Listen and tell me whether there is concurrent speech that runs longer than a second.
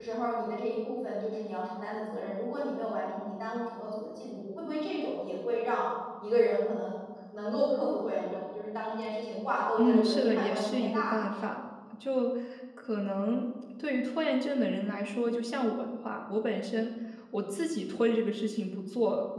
Yes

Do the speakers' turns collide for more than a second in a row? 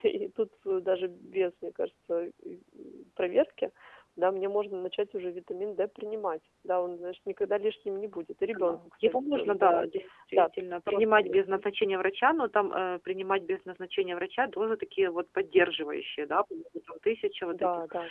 Yes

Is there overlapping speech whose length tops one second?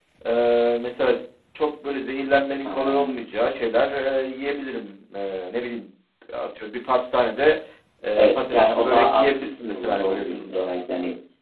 Yes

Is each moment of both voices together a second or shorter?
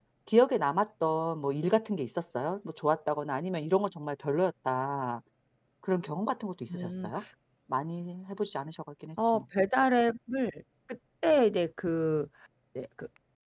Yes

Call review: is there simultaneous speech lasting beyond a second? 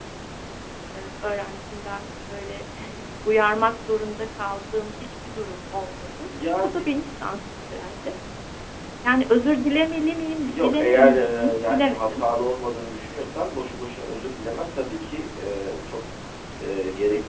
Yes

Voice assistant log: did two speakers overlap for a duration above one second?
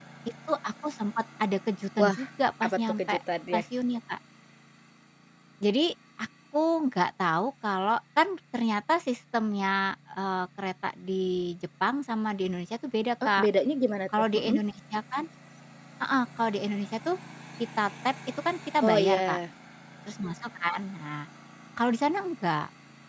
No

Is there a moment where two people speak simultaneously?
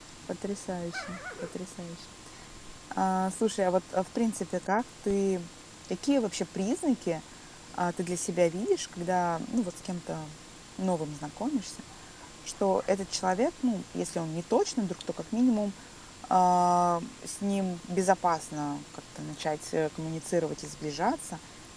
No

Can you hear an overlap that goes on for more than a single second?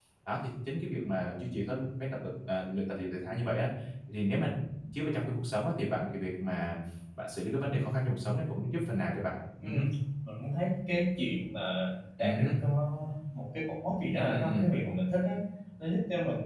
No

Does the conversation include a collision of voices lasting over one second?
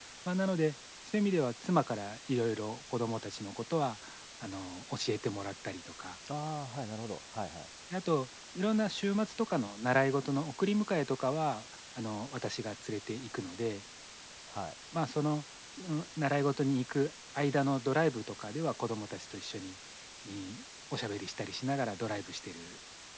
No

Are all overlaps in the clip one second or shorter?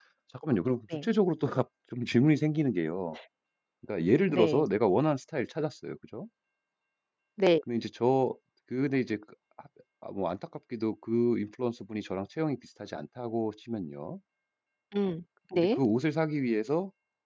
Yes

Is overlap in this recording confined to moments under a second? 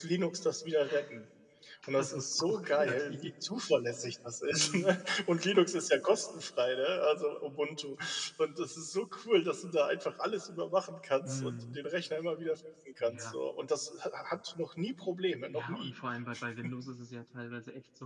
No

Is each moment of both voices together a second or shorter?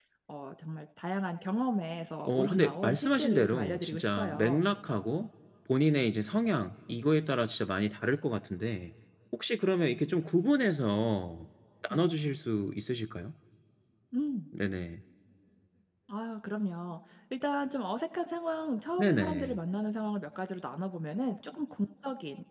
No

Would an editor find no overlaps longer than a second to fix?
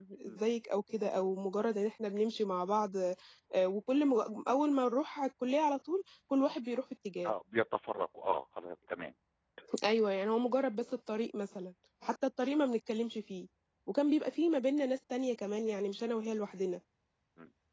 Yes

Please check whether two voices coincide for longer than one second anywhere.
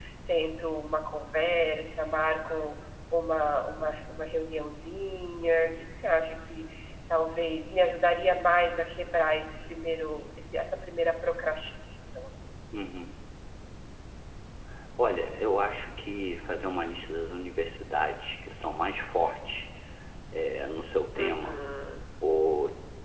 No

